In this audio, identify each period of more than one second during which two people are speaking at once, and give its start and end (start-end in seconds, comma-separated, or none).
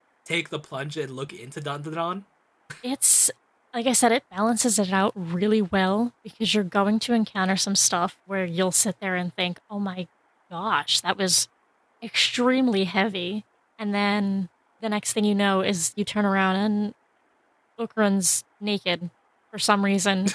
none